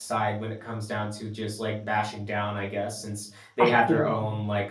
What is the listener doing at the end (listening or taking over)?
listening